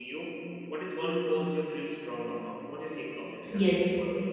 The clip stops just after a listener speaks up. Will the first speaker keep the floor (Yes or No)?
No